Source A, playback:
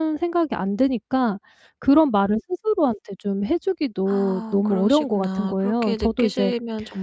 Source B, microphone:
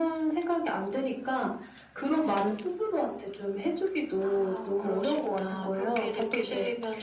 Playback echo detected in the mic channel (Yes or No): Yes